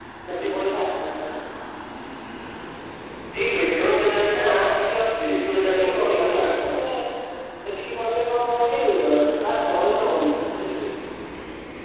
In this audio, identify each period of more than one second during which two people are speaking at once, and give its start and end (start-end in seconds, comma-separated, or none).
5.2-6.5